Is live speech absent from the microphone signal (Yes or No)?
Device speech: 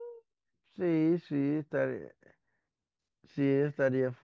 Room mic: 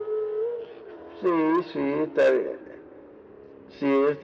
Yes